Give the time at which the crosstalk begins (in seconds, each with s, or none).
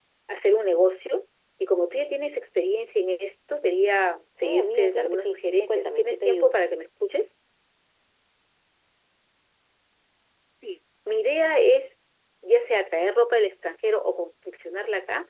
4.4 s